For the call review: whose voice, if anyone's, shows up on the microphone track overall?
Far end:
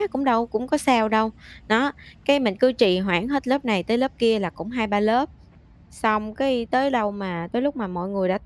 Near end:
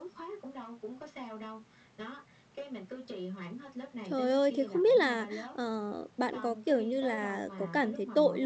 both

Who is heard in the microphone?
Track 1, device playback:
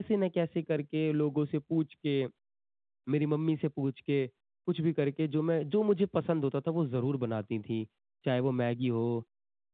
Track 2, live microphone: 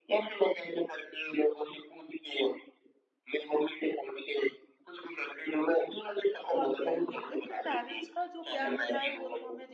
both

